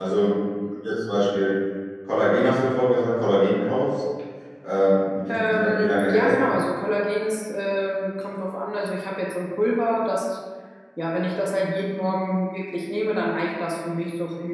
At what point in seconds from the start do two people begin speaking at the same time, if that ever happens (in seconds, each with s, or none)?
5.3 s